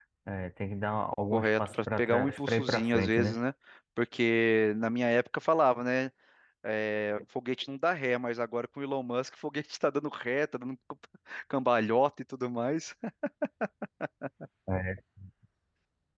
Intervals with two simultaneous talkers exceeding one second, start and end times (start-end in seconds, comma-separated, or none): 1.3-3.4